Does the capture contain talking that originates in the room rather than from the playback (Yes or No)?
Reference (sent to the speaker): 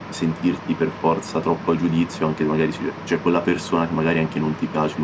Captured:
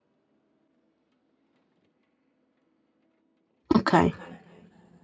Yes